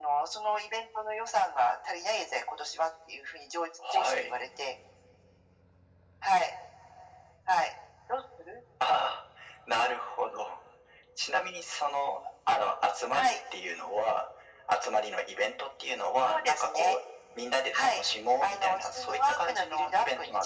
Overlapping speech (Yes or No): Yes